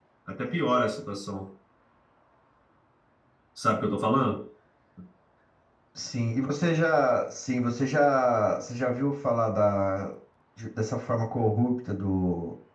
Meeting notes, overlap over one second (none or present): none